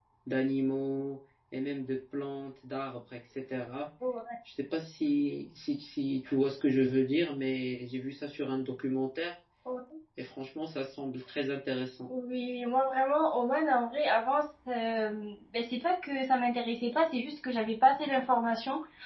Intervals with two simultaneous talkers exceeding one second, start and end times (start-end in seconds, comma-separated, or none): none